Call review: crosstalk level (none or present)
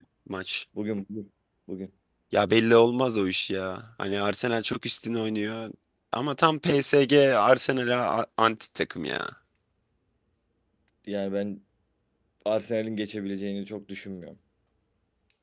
none